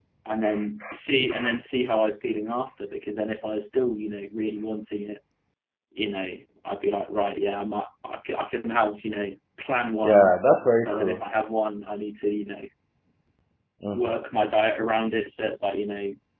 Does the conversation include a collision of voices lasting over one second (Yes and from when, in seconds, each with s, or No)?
No